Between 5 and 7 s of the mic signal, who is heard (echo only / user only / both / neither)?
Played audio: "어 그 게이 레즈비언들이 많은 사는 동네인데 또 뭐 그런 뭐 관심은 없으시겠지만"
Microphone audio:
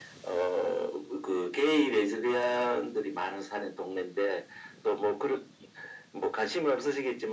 echo only